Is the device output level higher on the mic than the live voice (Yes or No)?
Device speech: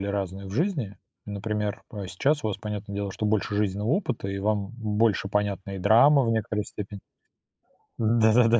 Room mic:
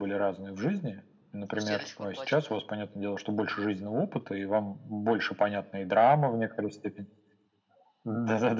Yes